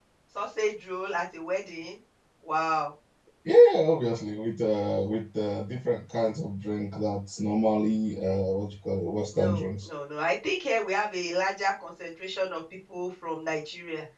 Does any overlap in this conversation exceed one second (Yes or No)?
No